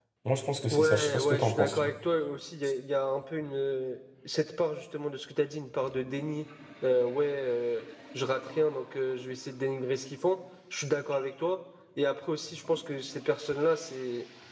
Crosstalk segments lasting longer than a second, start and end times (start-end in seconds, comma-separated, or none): 0.7-1.9